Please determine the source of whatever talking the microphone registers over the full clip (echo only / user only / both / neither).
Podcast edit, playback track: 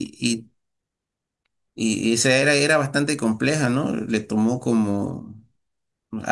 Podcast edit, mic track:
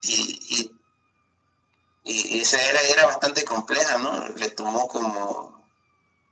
echo only